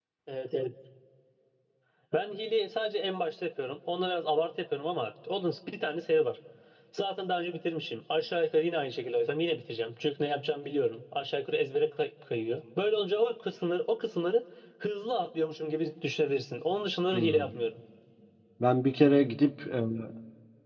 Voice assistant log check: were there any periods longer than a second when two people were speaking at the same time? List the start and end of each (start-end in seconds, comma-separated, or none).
none